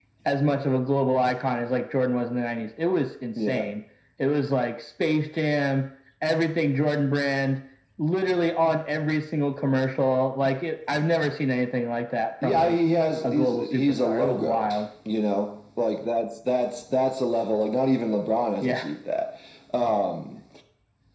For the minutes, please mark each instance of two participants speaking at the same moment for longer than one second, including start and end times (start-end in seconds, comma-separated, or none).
13.2-14.7